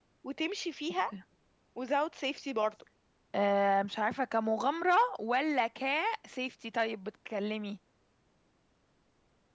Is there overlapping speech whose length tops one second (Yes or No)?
No